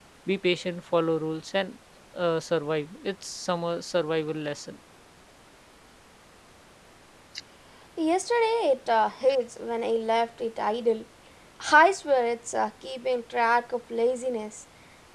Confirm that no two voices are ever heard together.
Yes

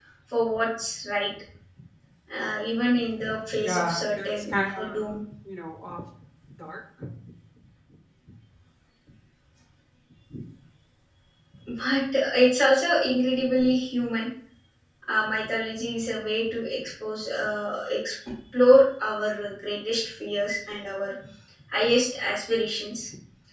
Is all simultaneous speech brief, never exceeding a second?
No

